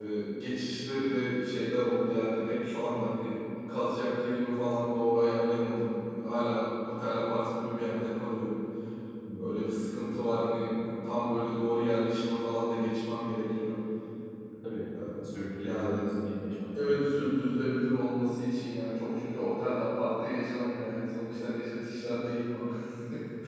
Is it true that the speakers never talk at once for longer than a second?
Yes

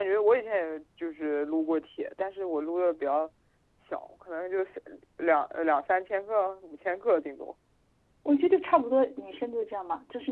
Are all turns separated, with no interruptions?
Yes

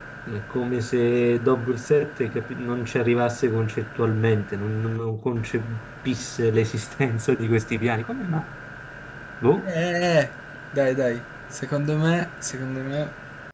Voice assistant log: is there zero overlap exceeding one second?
Yes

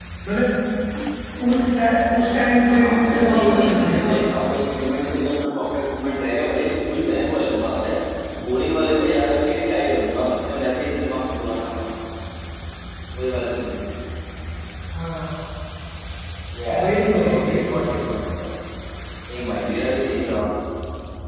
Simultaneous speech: Yes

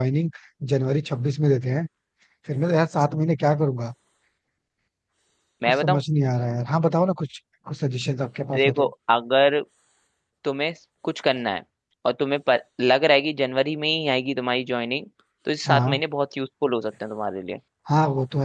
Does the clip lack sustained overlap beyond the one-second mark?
Yes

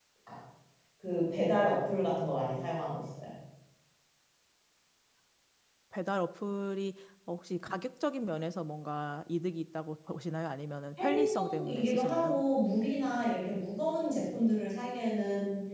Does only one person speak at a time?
No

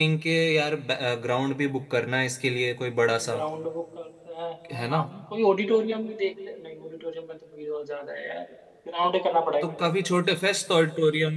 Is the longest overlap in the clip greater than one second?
No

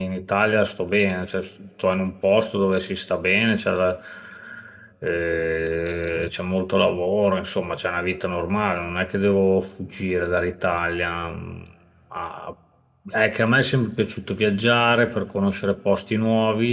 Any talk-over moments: No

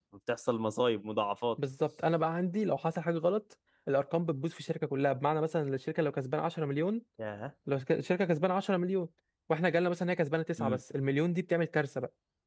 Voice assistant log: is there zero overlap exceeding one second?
Yes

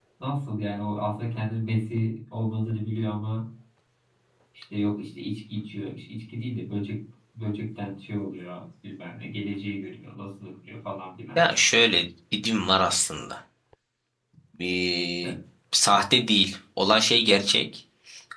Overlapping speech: No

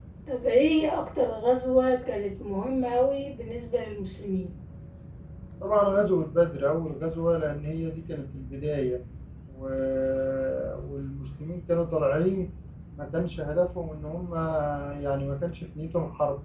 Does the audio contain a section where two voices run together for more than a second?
No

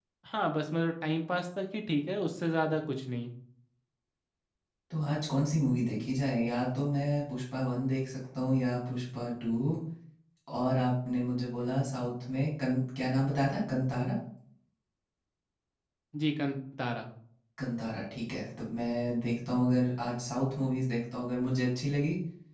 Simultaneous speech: No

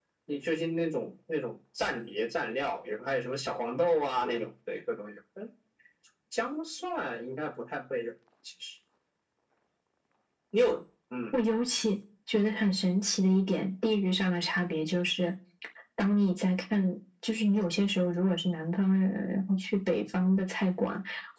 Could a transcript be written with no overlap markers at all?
Yes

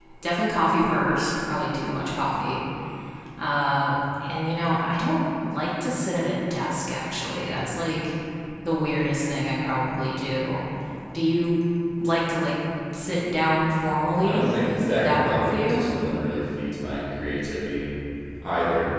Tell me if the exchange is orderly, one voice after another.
No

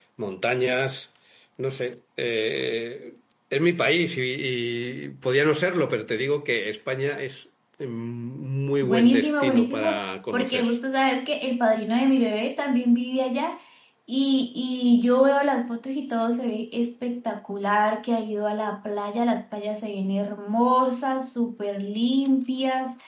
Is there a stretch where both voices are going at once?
Yes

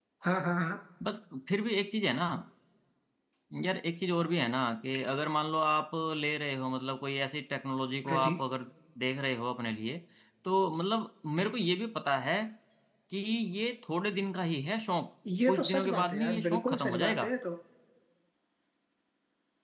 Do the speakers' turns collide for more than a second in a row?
Yes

